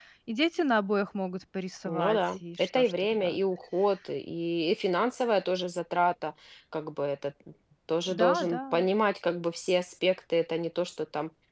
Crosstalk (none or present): present